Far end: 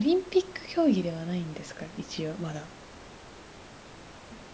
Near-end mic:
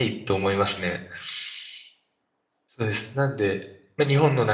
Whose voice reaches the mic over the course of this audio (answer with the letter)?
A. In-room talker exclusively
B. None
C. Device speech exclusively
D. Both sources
A